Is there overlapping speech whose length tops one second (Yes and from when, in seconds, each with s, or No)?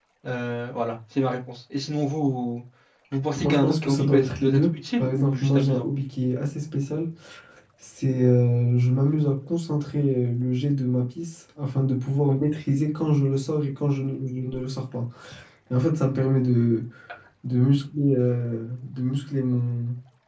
Yes, from 3.4 s